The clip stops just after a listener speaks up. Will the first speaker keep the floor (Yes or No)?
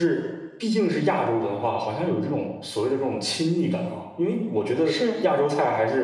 Yes